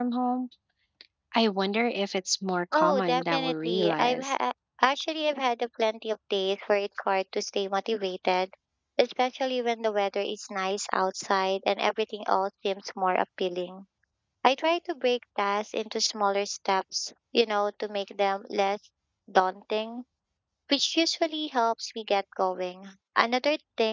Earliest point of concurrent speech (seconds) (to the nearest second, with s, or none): 3 s